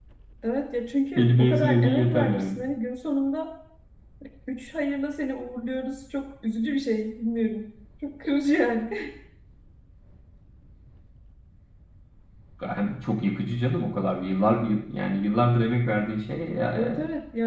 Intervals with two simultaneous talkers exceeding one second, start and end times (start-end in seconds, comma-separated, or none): 1.2-2.6